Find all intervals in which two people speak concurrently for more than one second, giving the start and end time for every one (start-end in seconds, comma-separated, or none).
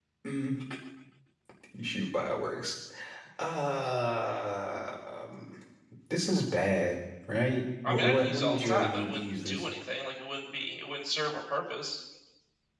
7.9-9.6